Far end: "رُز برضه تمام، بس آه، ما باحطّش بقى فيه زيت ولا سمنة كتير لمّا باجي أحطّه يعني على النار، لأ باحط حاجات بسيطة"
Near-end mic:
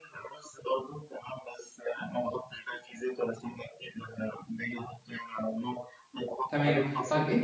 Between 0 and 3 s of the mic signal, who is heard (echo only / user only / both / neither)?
echo only